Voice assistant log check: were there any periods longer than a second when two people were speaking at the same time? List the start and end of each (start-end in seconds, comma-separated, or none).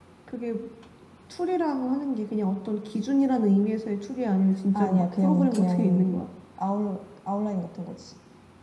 4.7-6.2